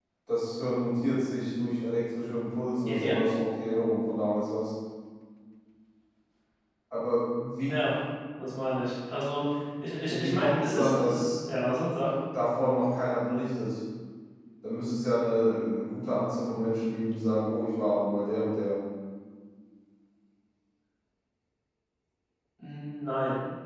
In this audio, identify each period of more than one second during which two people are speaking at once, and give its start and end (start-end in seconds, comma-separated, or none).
10.1-11.3